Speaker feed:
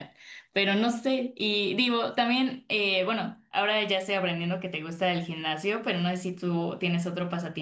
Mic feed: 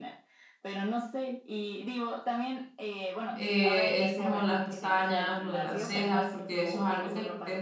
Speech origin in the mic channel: both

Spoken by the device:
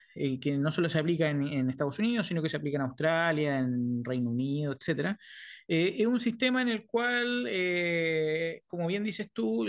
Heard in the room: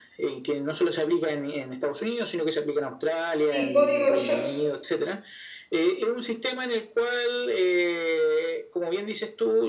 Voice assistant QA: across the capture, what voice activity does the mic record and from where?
both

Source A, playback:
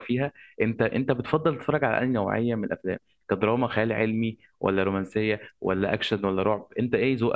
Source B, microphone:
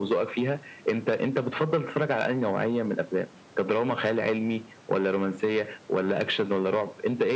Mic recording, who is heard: echo only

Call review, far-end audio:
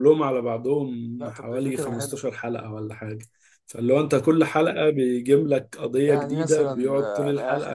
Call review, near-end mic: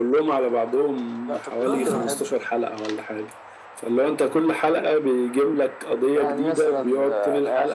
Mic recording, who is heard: both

